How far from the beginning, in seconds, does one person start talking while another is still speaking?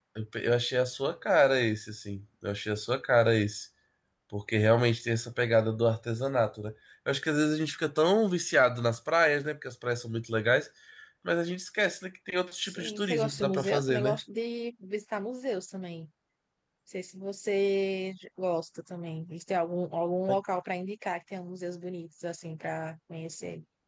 12.6 s

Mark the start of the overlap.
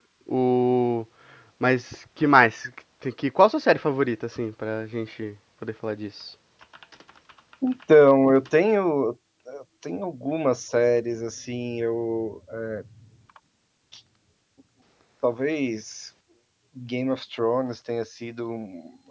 none

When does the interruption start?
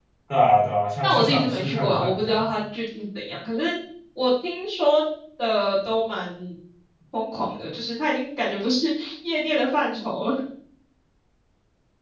1.0 s

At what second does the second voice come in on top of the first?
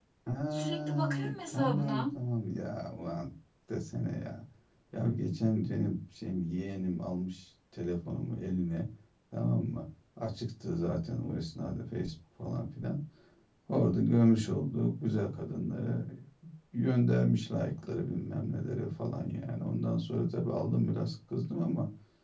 0.5 s

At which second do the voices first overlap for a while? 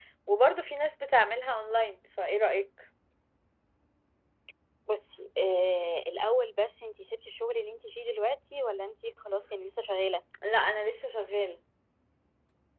none

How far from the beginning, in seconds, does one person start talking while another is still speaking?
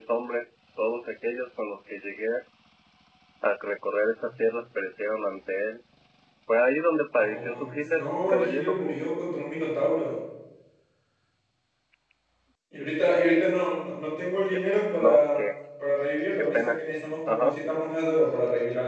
7.1 s

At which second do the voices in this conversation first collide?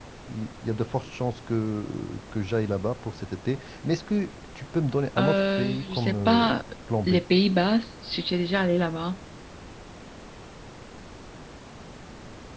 5.2 s

